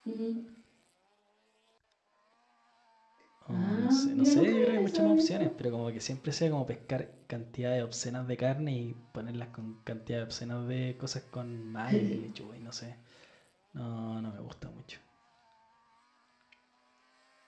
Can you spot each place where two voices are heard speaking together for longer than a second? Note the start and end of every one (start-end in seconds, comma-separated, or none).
3.5-5.5